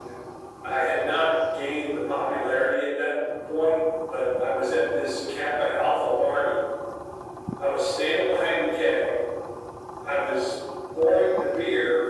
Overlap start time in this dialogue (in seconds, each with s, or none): none